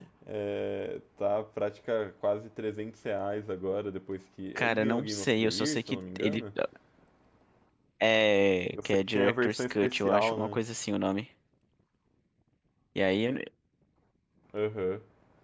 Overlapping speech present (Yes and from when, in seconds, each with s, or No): Yes, from 4.6 s